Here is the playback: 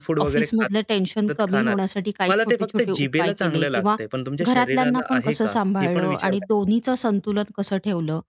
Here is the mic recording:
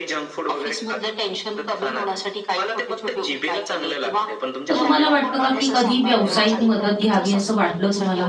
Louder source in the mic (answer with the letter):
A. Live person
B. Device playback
A